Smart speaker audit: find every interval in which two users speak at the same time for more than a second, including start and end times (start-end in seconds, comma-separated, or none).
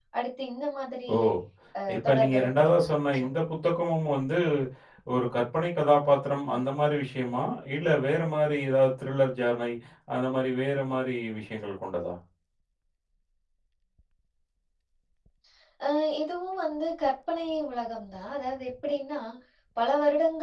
2.0-3.2